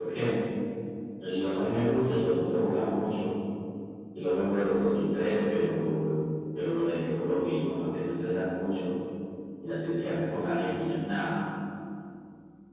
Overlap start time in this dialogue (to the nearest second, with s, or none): none